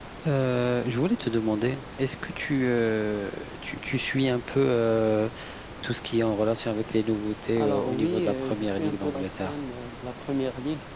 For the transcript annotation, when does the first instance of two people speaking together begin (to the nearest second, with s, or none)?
8 s